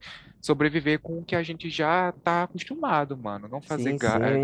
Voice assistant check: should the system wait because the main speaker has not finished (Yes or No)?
No